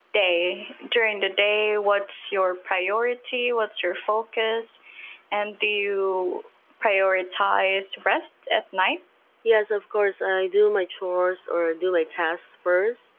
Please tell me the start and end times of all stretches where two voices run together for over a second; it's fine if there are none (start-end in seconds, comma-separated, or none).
none